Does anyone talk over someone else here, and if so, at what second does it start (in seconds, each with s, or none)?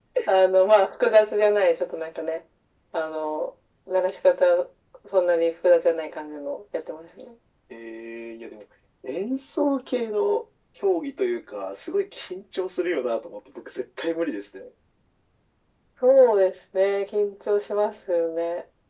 none